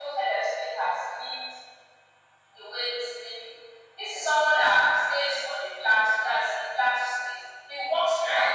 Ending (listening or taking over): listening